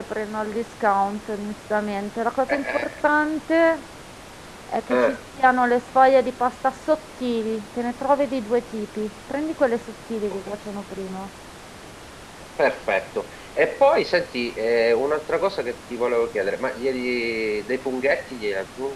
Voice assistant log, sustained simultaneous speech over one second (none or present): none